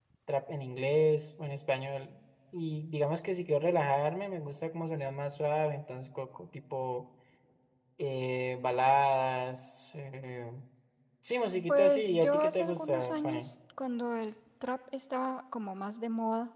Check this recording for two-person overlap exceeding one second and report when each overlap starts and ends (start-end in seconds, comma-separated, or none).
11.7-13.5